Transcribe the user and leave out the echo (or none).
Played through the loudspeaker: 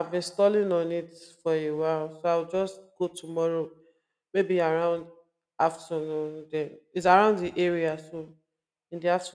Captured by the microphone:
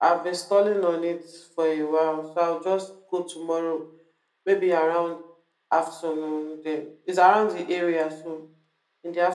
none